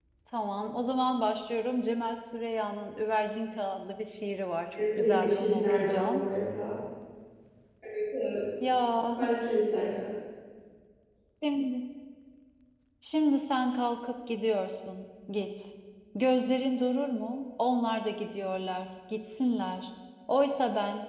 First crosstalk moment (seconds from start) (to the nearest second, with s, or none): 5 s